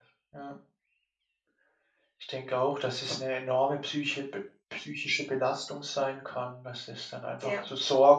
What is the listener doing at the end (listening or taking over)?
listening